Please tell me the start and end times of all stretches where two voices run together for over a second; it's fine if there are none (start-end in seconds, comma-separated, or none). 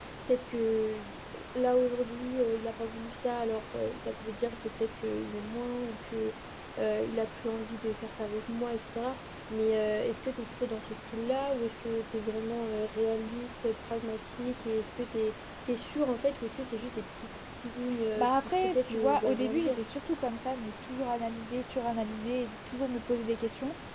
18.1-19.8